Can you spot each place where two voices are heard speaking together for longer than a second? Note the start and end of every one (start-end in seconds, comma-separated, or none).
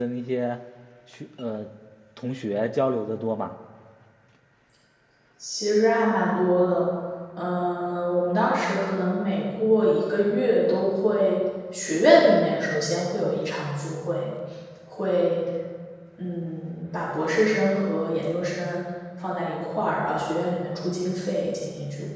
none